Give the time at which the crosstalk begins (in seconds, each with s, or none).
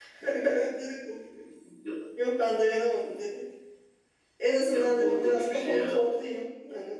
4.7 s